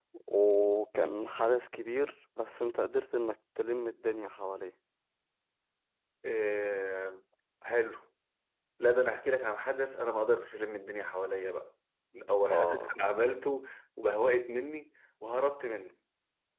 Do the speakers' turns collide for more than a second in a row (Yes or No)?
No